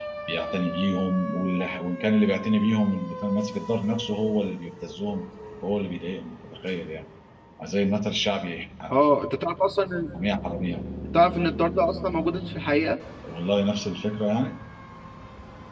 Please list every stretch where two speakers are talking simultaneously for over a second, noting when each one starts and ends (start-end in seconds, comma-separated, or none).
none